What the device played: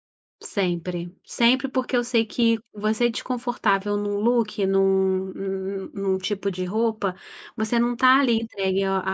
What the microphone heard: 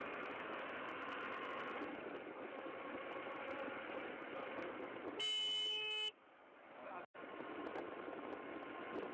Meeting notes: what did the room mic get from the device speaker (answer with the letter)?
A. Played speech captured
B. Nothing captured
B